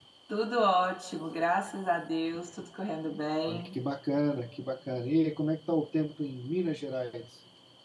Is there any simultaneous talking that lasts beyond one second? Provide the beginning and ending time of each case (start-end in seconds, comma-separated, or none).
none